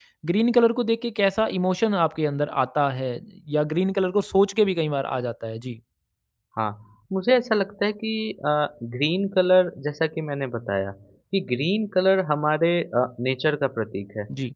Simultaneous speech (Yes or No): No